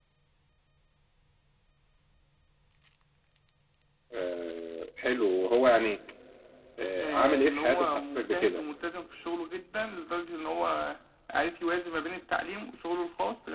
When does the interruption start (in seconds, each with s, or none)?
7.0 s